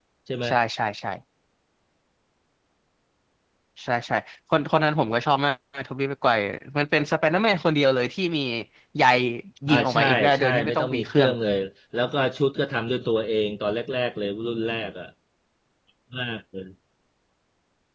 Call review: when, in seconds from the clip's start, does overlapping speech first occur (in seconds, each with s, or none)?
9.7 s